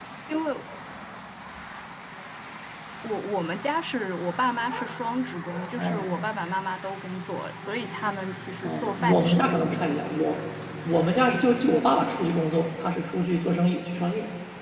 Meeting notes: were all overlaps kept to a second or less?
No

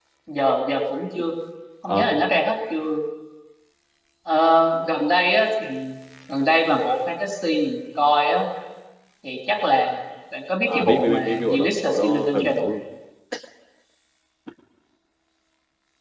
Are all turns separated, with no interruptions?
No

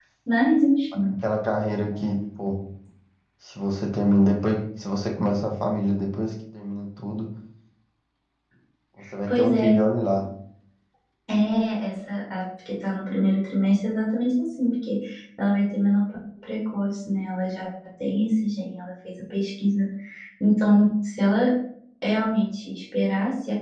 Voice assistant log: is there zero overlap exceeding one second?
Yes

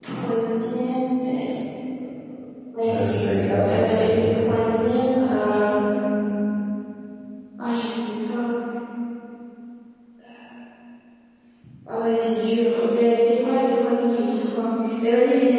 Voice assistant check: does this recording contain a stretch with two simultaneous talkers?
Yes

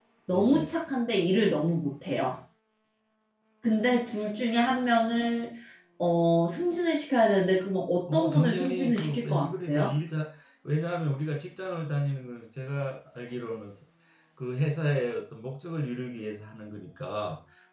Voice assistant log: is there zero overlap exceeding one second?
No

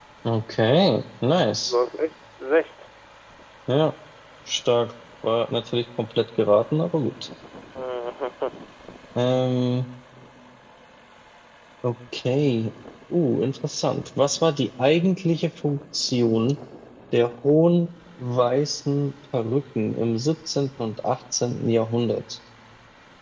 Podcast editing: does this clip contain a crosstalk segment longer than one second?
No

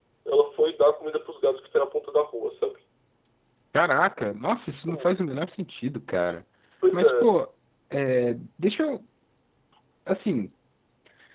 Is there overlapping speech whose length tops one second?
No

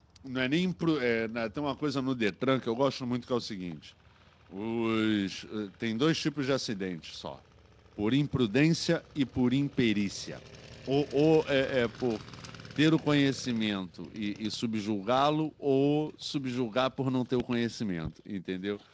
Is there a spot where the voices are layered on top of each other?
No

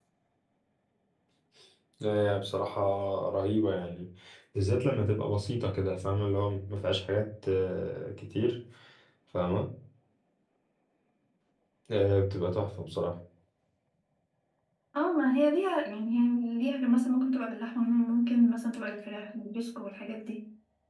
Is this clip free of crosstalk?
Yes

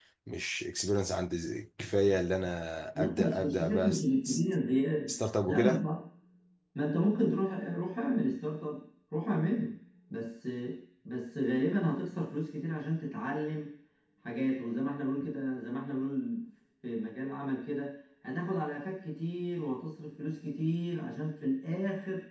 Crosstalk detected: Yes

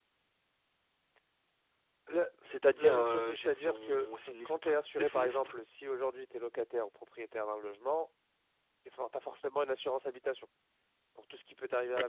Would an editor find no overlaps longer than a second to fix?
No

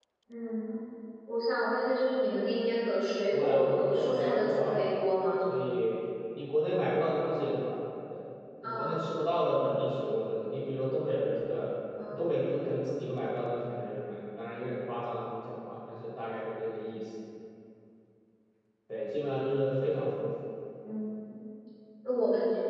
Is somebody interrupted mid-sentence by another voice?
Yes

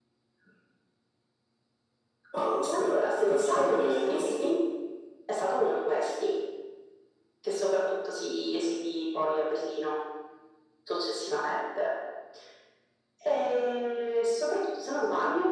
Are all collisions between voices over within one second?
No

